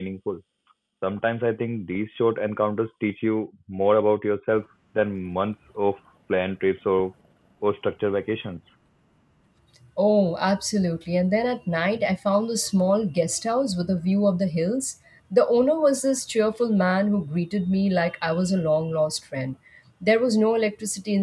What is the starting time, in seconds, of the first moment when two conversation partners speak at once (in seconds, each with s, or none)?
none